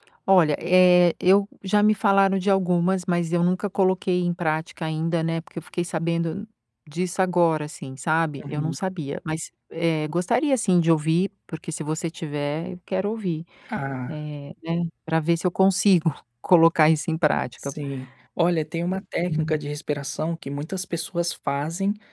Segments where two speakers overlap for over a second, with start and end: none

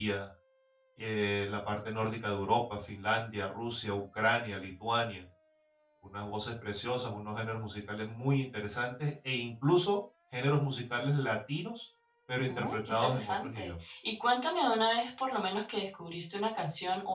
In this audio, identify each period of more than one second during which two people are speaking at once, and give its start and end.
12.5-13.7

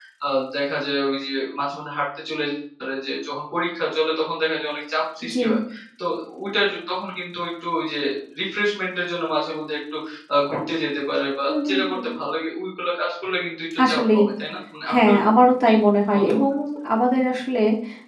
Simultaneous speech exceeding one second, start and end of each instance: none

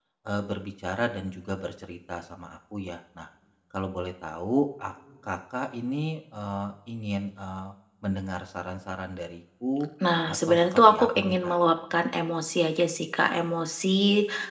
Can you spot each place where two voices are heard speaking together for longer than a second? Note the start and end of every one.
10.3-11.6

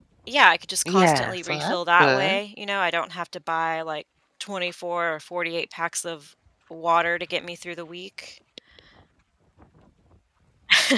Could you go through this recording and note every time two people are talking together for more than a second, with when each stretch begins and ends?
0.8-2.4

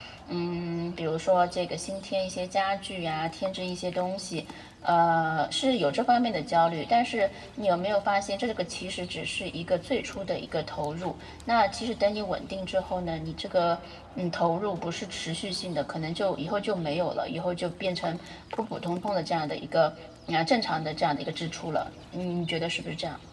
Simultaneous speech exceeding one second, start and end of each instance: none

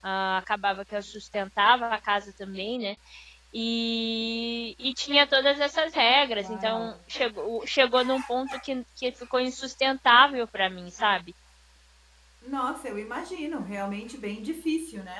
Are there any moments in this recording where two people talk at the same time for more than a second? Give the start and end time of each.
none

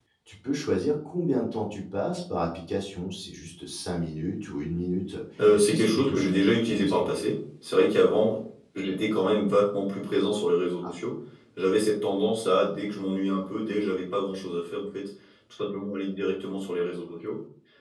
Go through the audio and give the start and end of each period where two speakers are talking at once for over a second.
5.5-7.1

